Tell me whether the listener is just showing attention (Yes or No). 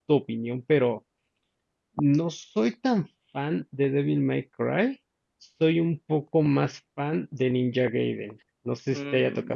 No